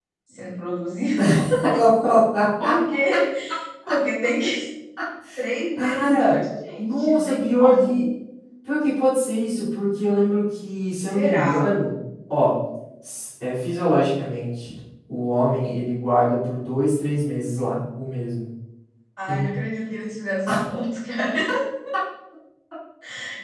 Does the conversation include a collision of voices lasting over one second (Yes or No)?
Yes